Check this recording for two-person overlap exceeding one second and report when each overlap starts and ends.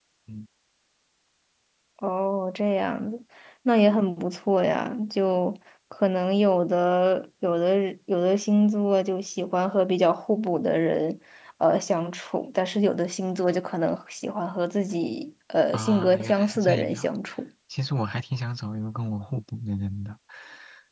15.7-17.1

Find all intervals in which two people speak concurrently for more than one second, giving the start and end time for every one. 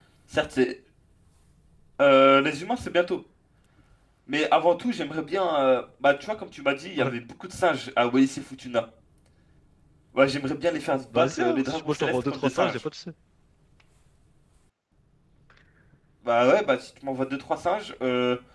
11.2-12.8

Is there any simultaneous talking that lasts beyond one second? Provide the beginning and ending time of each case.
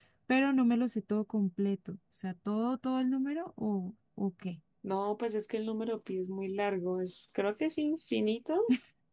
none

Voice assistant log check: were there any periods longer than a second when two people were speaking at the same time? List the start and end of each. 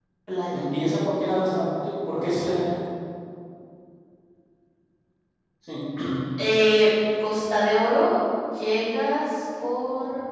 0.5-2.7

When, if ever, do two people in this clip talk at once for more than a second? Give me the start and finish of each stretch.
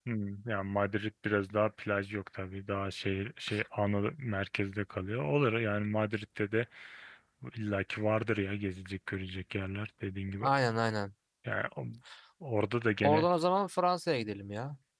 none

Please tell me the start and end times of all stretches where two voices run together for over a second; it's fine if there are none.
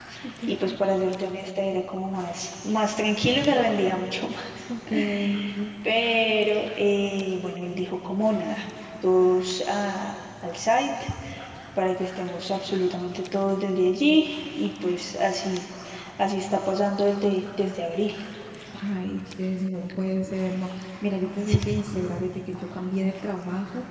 none

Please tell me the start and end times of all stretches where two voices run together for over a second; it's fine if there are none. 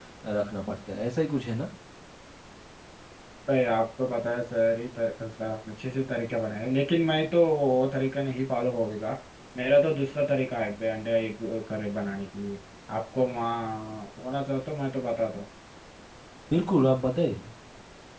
none

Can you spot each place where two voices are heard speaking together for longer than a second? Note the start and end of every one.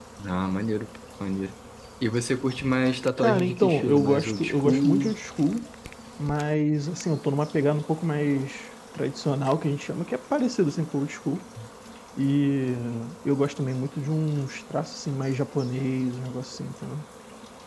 3.2-5.1

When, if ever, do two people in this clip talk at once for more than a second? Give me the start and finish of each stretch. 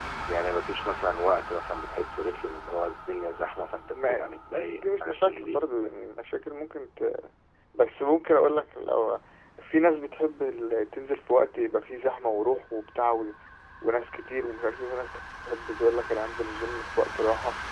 3.8-5.6

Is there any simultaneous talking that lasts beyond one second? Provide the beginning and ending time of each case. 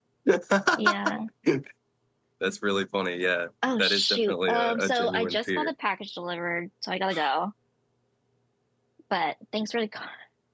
3.8-5.7

